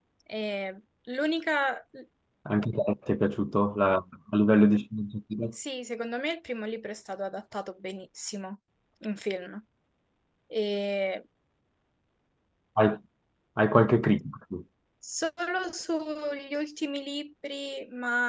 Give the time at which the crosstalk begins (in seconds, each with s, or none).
none